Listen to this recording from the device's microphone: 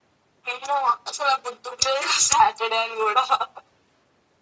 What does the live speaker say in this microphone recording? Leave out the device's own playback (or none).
none